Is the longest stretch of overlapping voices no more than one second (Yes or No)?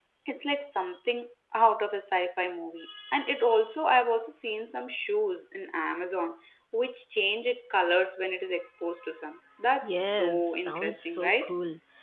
No